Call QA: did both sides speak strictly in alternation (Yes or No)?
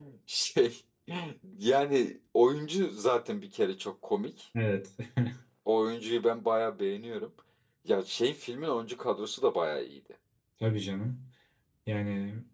Yes